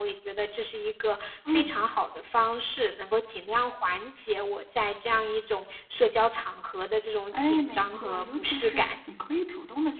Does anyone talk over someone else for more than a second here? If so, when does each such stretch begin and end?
7.3-8.9

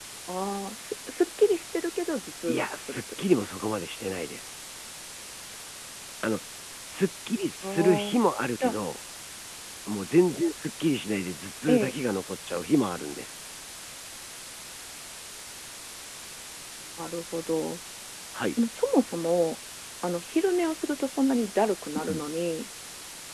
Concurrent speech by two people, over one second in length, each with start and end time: 2.5-3.7

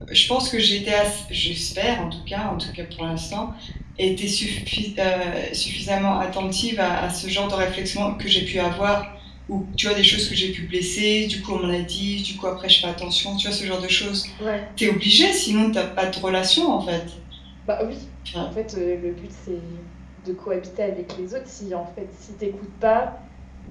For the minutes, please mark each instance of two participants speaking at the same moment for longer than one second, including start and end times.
none

